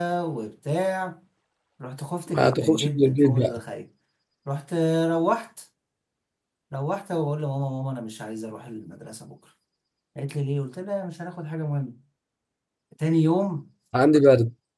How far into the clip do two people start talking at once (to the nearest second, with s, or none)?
2 s